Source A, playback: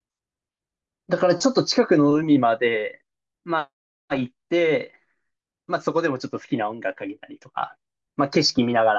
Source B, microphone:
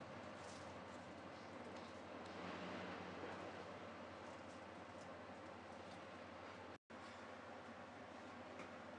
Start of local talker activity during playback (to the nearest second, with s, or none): none